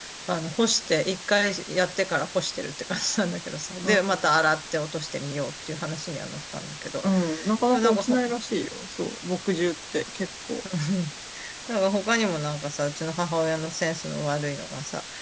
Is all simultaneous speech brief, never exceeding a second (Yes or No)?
Yes